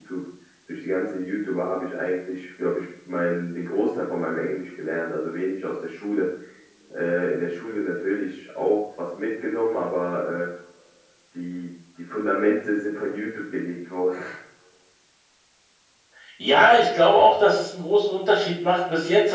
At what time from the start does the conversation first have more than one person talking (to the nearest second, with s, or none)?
none